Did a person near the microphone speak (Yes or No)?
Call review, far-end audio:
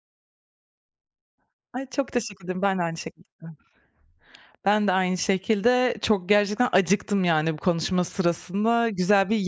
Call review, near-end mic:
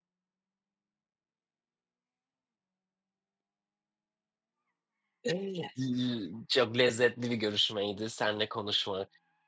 Yes